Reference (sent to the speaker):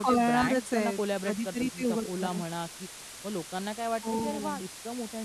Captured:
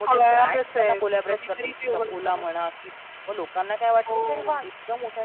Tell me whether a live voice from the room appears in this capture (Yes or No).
No